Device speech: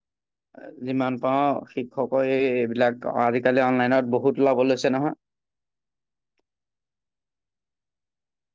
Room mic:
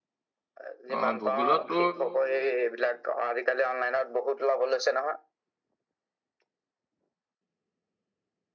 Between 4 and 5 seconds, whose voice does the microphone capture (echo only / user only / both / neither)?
echo only